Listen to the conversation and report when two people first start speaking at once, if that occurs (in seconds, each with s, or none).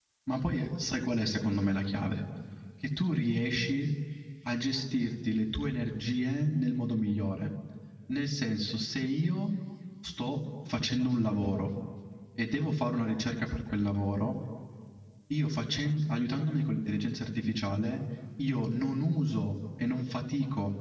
none